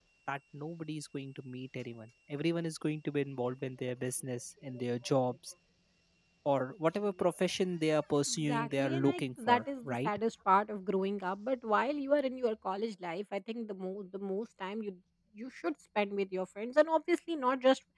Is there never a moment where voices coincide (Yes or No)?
No